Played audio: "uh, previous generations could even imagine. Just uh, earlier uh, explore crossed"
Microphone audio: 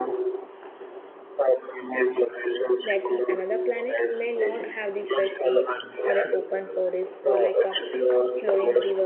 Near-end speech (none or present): present